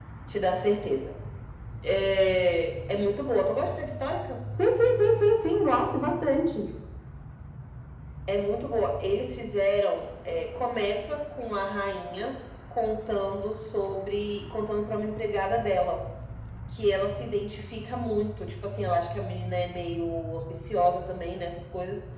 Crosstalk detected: No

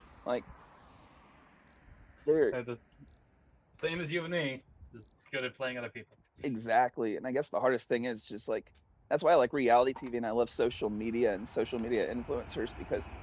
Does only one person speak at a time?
Yes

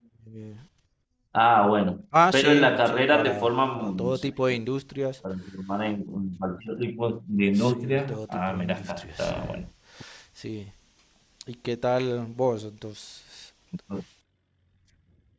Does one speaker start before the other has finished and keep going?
Yes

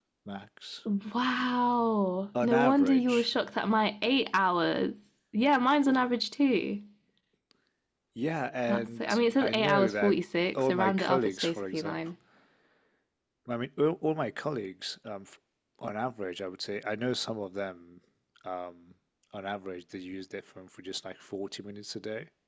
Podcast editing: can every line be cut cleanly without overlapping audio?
No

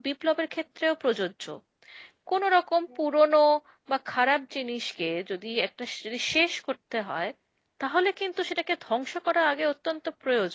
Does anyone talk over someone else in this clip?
No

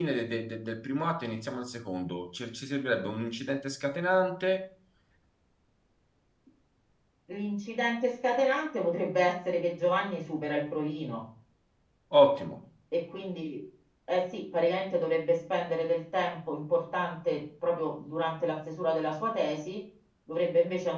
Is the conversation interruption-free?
Yes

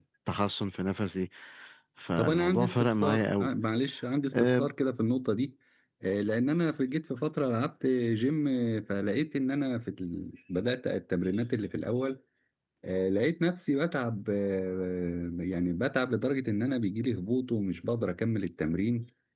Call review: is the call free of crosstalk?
No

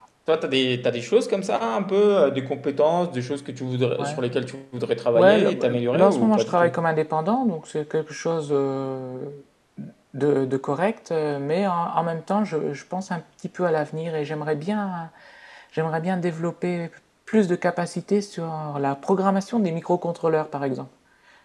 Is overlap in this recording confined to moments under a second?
No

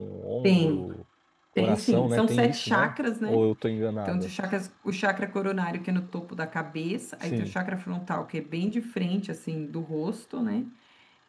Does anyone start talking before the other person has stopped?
Yes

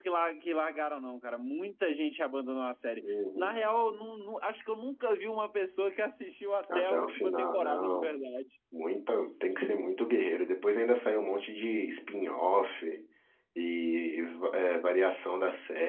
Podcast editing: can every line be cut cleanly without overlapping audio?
No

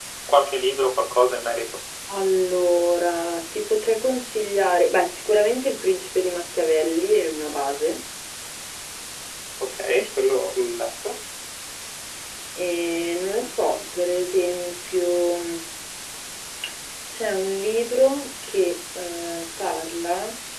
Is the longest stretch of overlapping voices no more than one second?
Yes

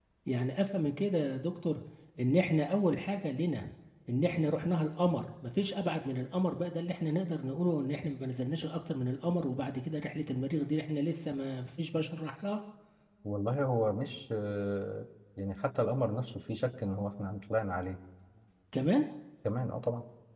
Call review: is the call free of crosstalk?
Yes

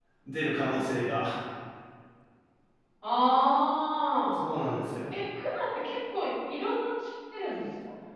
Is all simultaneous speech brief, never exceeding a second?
Yes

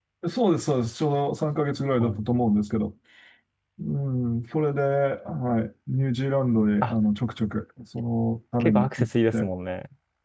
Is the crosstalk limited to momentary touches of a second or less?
Yes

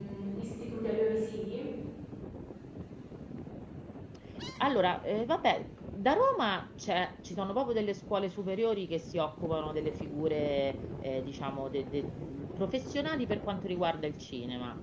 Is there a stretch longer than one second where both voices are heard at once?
No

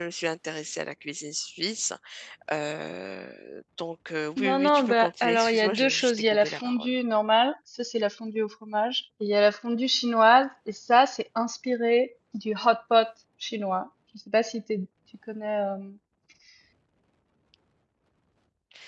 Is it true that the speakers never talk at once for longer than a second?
No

